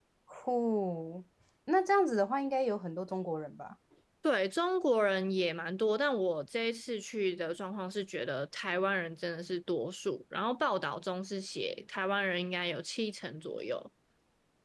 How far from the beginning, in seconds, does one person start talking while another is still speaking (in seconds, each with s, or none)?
none